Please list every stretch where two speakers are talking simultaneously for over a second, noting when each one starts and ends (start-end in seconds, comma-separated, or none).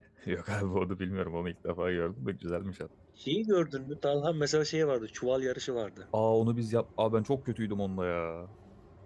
none